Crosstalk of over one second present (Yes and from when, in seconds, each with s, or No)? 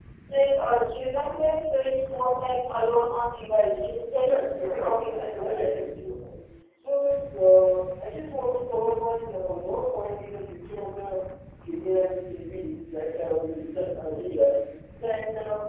Yes, from 4.1 s